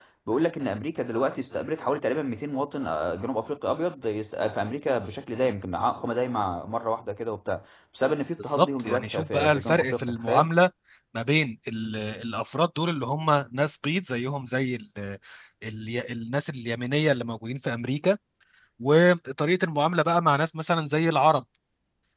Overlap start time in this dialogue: 8.4 s

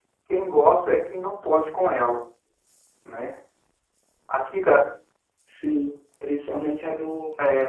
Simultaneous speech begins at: none

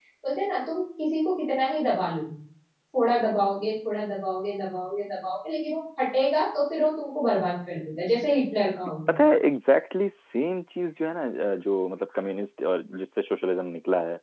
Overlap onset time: none

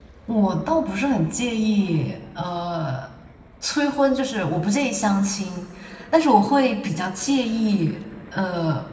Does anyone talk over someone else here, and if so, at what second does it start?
none

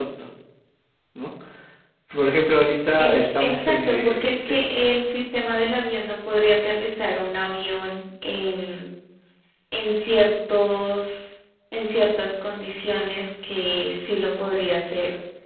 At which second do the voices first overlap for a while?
3.0 s

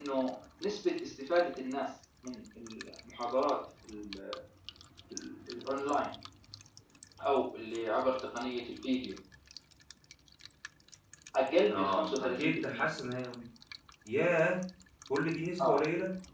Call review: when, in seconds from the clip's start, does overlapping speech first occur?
11.7 s

